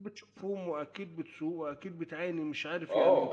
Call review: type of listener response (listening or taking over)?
taking over